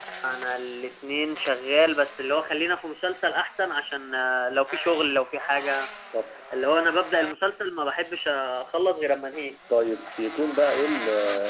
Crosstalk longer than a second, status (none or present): none